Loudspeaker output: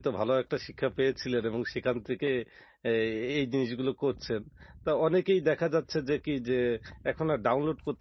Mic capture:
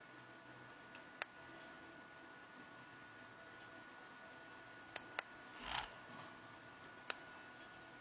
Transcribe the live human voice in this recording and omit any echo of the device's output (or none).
none